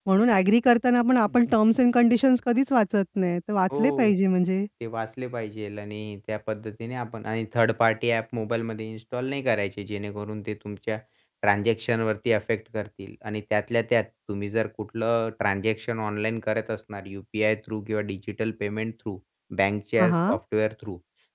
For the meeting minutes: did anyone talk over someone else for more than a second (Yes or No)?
No